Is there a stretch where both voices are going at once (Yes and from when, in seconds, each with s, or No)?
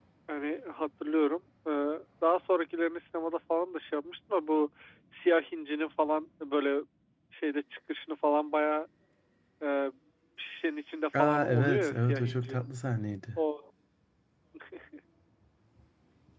Yes, from 11.2 s